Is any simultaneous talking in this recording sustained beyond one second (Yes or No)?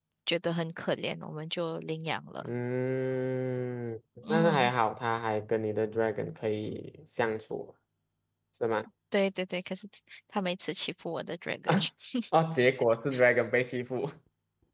No